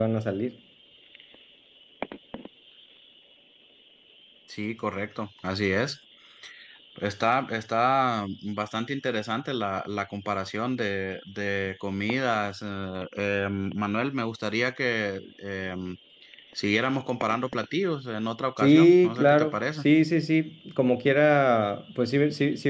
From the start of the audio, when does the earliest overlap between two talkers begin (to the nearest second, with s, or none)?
19 s